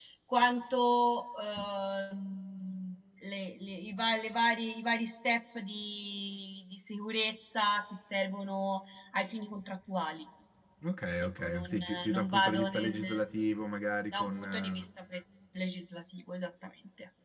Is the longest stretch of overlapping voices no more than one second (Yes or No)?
No